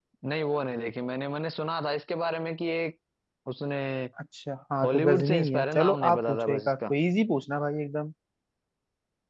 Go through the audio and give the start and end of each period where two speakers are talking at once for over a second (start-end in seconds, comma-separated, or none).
4.8-6.9